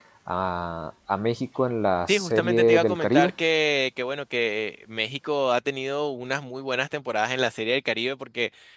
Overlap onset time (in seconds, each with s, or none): 2.1 s